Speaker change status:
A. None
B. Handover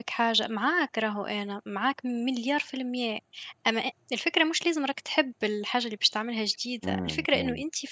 A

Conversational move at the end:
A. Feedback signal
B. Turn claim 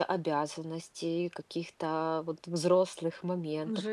B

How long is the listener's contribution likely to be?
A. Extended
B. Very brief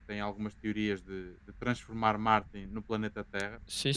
B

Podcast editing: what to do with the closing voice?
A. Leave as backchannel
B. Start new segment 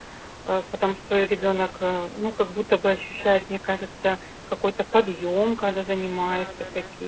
B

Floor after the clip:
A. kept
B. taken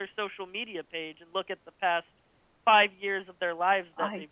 A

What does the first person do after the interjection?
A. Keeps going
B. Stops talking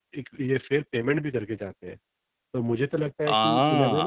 A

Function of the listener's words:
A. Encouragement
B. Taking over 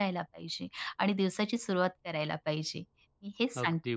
B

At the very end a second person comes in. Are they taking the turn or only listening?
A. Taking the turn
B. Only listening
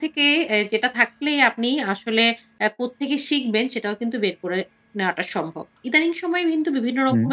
B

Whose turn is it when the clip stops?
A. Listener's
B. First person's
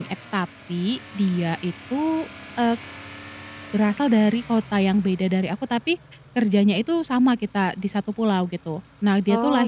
B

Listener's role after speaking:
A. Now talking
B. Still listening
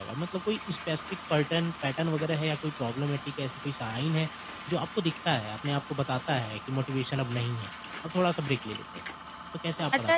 A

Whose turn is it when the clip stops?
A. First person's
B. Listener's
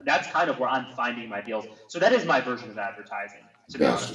B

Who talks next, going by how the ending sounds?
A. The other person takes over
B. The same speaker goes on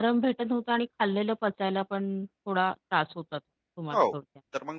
A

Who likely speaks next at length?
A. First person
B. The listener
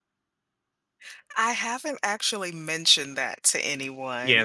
B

